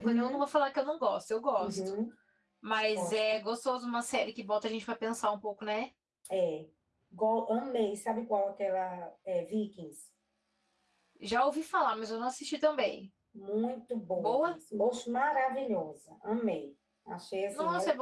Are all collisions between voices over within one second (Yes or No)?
Yes